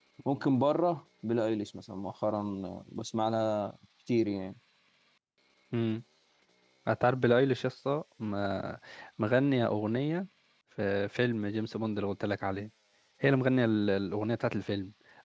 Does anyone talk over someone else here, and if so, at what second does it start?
none

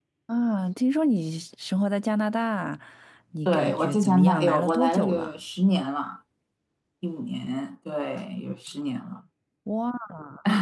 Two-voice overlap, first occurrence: 3 s

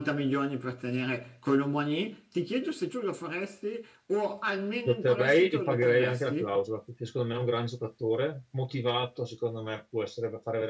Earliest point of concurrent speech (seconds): 5 s

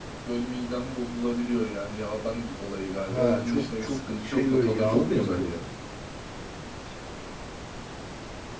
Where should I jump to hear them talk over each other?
3 s

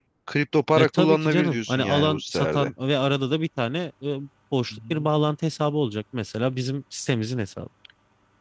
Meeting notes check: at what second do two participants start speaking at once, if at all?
1 s

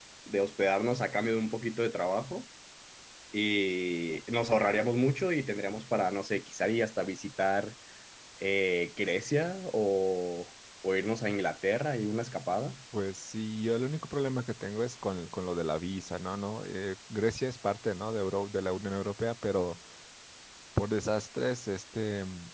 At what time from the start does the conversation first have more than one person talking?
none

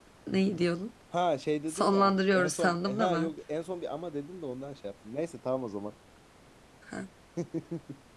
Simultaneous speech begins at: 2 s

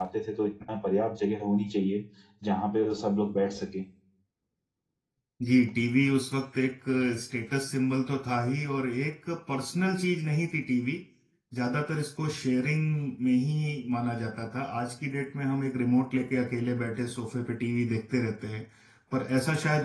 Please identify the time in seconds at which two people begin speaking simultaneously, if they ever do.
none

